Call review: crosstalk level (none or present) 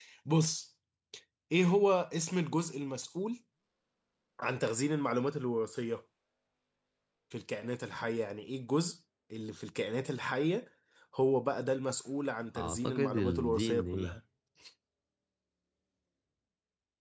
present